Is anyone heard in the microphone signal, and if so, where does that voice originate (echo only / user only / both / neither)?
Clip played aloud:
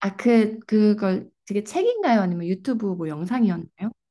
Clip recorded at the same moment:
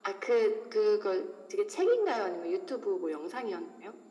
echo only